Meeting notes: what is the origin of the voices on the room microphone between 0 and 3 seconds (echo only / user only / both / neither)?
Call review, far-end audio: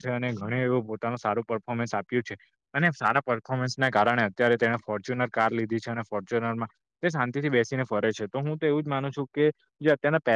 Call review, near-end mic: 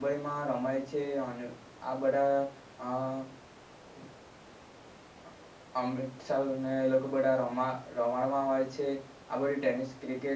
user only